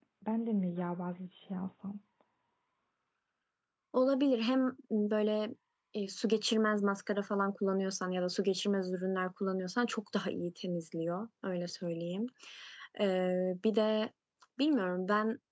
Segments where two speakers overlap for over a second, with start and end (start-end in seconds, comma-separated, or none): none